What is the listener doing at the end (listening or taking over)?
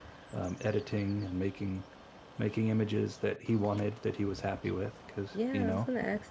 taking over